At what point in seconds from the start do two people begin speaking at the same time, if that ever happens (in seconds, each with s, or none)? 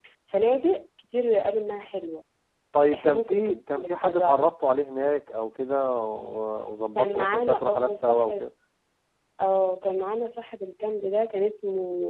2.9 s